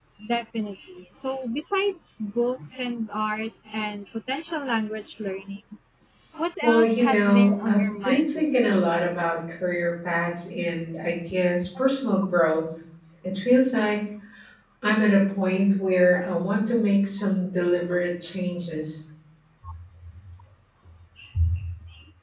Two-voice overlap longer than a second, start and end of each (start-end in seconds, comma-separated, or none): 6.6-8.8